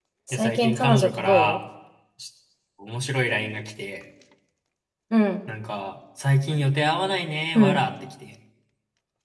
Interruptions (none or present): present